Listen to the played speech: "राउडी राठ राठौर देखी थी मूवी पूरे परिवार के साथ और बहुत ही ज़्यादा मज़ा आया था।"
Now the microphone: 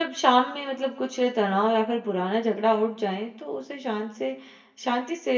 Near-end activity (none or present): present